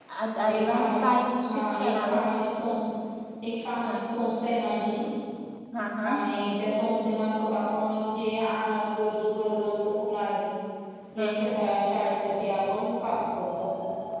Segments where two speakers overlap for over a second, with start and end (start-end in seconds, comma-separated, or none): 0.5-2.2